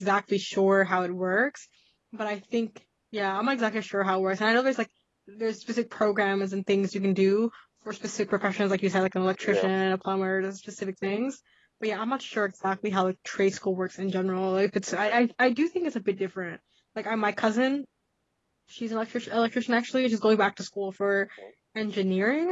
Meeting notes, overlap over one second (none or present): none